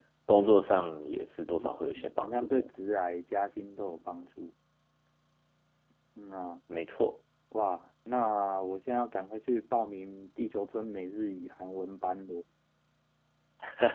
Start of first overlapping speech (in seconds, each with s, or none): 1.4 s